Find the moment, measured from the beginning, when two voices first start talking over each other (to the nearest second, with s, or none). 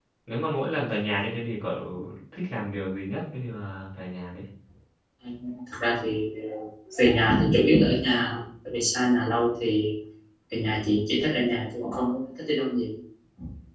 none